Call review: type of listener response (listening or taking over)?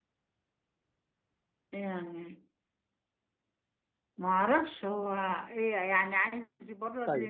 taking over